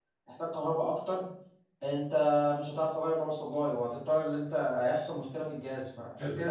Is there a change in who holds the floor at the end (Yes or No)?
No